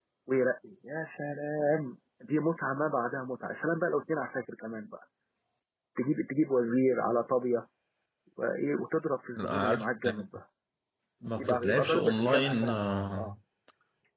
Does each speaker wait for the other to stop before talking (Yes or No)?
No